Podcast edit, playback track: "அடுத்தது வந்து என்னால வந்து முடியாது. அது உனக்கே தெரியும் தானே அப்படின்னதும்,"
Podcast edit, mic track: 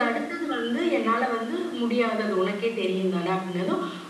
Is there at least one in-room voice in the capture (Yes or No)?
No